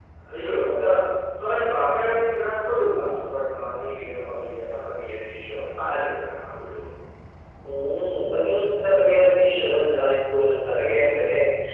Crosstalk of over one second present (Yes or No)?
No